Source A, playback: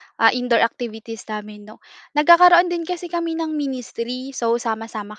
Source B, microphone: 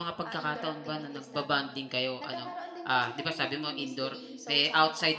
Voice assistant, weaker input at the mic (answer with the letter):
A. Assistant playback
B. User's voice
A